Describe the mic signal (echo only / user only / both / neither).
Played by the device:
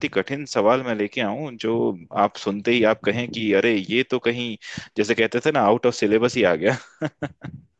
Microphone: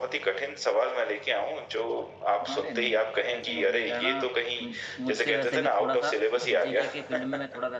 both